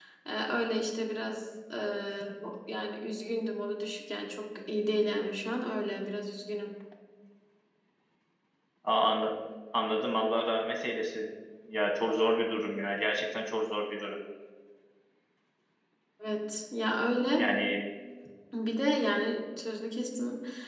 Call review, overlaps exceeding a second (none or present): none